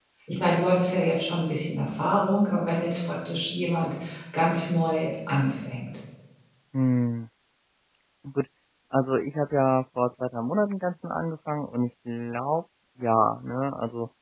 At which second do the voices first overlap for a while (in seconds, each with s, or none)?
none